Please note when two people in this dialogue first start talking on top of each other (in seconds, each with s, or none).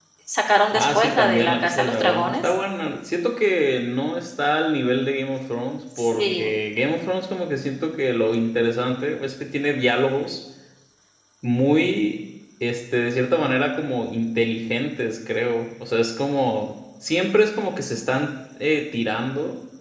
0.7 s